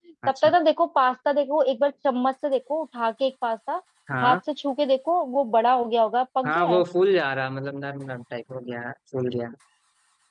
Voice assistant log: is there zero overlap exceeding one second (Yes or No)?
Yes